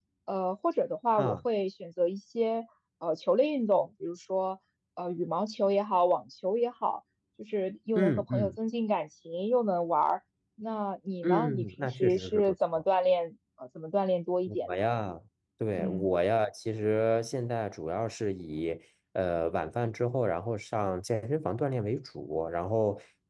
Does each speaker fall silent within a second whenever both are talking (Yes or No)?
No